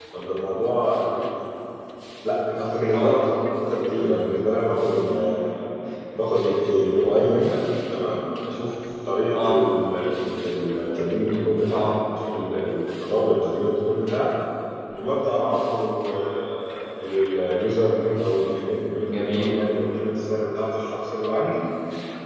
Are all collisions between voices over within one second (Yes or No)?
Yes